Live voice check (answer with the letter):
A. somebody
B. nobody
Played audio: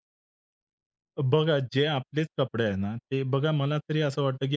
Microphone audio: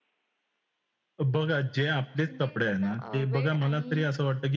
A